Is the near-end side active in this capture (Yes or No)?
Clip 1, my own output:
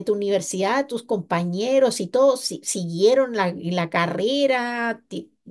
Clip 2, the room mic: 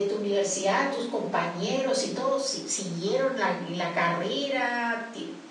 No